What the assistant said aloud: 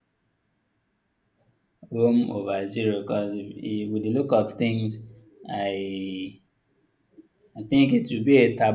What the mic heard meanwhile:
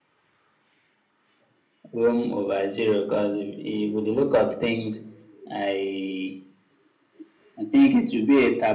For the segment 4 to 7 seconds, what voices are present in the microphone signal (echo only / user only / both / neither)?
echo only